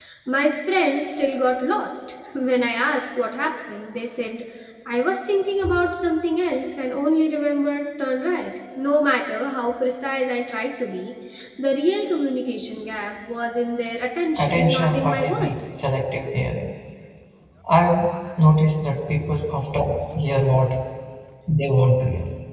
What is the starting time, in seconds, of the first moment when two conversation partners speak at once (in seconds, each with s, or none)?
14.4 s